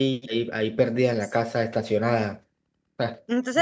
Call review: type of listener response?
taking over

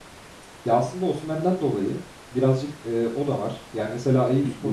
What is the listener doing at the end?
taking over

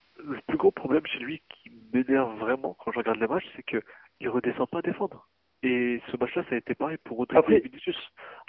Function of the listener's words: listening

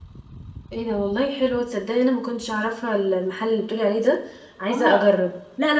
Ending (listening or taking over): taking over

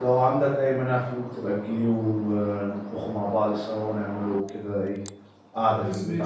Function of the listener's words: taking over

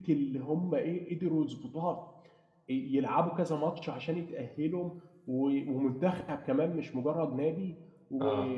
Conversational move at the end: listening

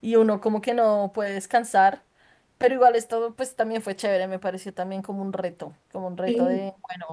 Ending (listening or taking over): listening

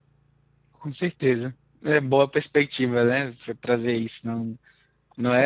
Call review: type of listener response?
listening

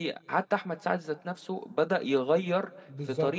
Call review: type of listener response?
taking over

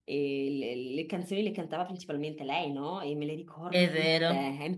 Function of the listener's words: listening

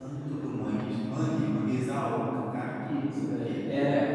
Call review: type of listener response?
taking over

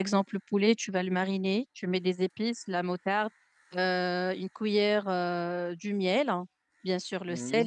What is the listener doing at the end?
listening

